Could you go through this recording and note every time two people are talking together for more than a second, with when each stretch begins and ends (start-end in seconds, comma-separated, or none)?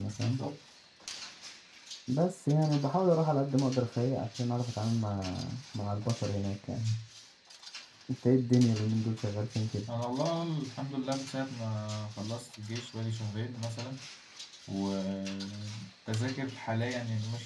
none